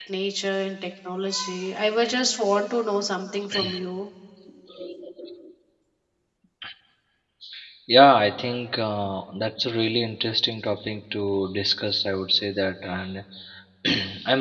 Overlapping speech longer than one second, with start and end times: none

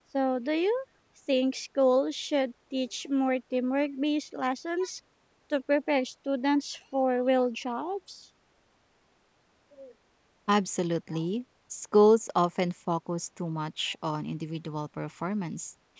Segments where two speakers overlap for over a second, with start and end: none

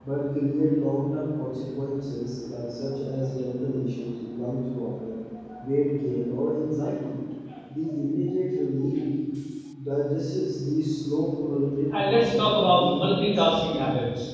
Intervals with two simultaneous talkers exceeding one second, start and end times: 11.9-13.3

